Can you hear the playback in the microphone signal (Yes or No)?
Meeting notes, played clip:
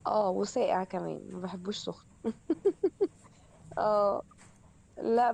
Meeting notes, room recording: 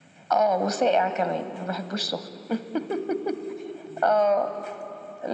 Yes